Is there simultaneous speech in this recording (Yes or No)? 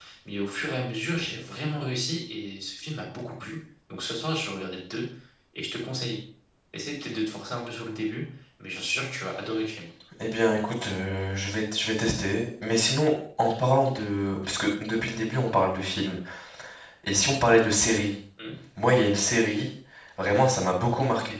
No